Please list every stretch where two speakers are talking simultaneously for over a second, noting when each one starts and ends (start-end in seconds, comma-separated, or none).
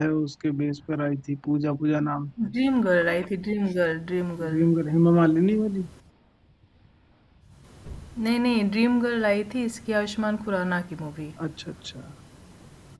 none